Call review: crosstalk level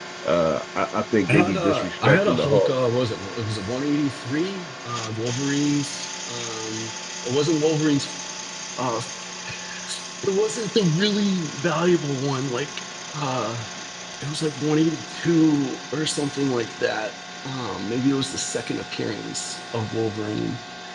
present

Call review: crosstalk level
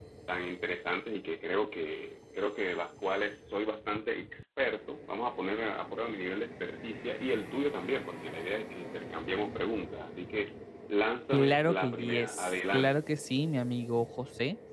present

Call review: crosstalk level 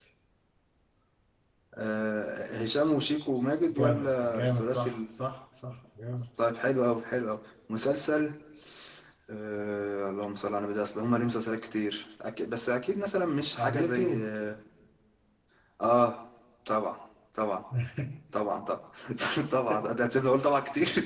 present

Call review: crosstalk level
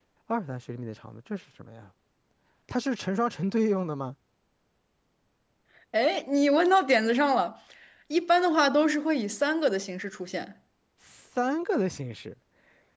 none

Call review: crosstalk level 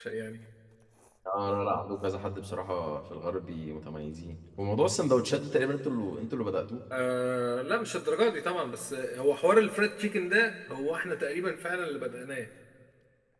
none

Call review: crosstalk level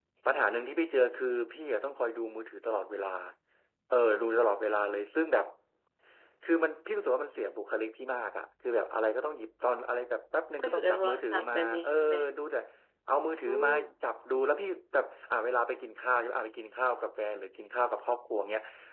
present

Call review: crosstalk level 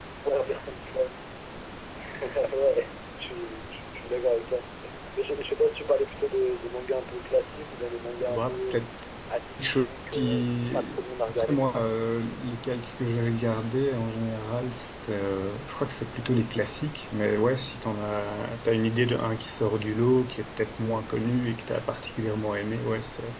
present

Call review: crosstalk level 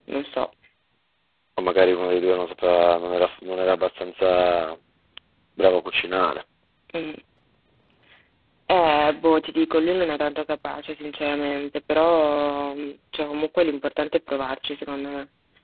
none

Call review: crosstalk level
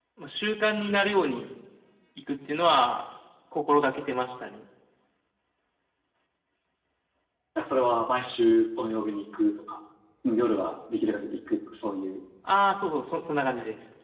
none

